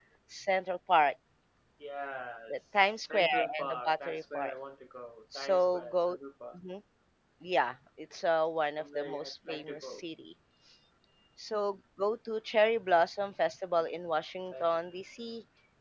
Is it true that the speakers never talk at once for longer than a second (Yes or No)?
No